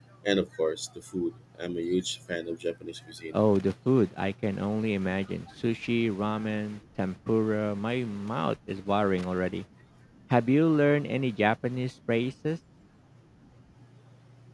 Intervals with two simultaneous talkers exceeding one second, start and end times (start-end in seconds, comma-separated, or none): none